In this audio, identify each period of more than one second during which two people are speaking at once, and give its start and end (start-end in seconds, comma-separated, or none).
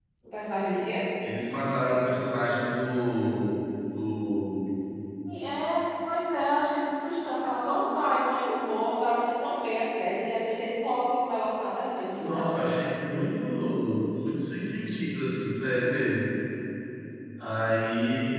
none